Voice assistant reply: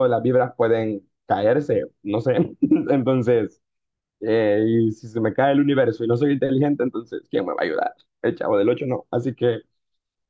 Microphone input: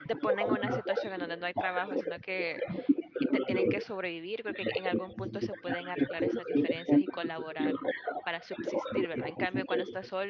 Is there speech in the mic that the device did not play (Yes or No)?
Yes